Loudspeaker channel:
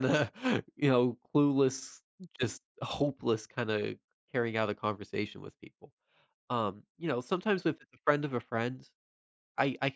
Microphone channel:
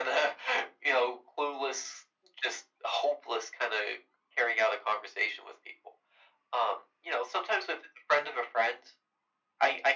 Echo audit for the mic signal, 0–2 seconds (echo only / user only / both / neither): echo only